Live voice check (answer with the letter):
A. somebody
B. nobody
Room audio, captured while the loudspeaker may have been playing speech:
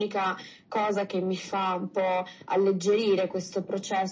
B